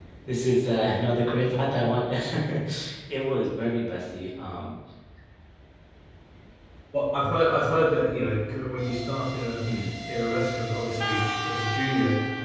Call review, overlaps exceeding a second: none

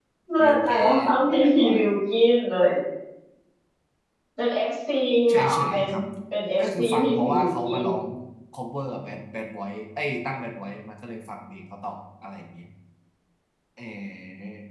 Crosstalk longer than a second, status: present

